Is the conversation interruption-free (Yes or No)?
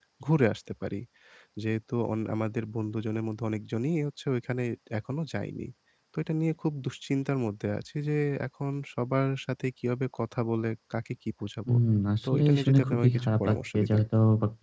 No